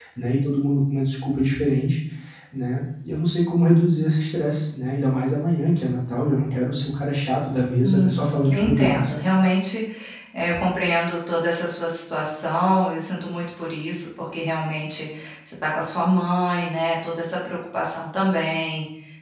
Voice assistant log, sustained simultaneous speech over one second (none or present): present